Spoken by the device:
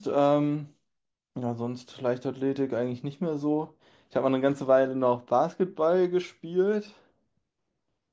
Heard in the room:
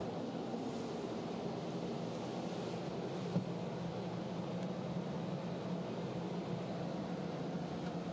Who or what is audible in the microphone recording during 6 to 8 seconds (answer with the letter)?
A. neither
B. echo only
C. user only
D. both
A